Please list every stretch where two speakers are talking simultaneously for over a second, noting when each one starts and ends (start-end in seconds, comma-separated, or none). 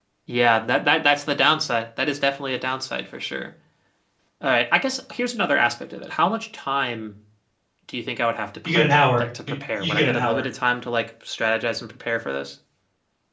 8.7-10.4